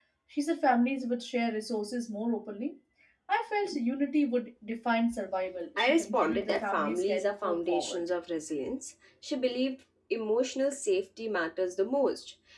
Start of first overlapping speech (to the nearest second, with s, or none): 6 s